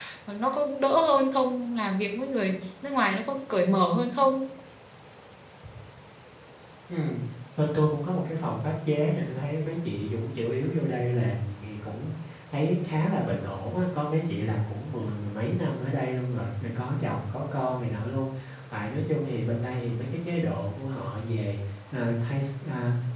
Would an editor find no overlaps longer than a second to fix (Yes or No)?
Yes